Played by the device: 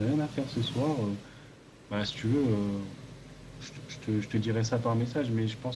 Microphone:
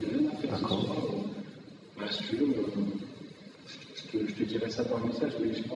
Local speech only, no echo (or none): d'accord.